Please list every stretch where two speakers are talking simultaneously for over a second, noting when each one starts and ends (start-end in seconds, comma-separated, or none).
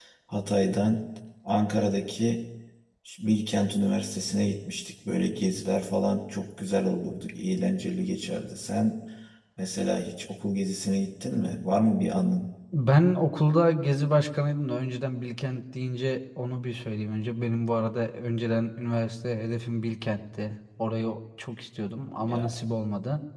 none